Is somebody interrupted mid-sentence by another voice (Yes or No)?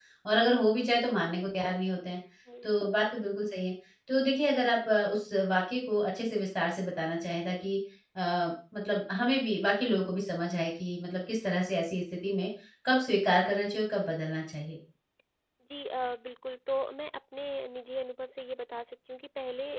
No